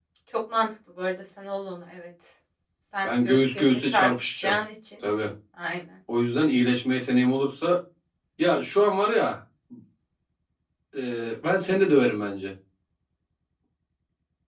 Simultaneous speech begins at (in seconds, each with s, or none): 3.0 s